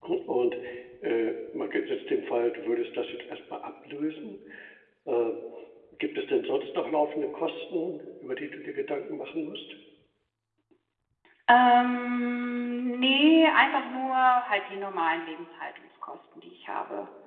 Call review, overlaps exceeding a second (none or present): none